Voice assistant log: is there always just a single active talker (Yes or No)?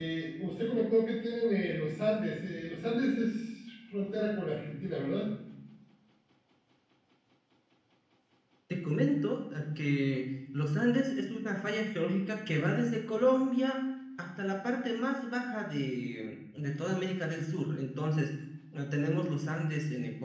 Yes